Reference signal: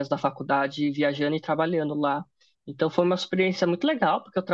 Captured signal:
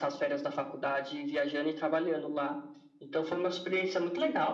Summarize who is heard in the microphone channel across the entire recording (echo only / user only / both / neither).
echo only